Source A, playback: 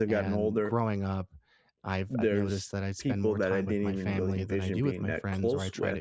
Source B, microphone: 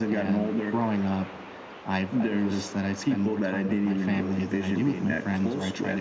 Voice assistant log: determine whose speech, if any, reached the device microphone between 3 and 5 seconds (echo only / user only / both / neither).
echo only